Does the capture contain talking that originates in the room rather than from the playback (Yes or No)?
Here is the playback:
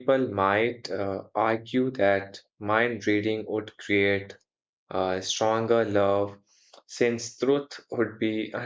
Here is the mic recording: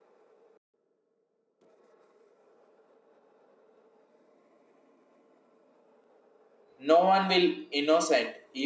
Yes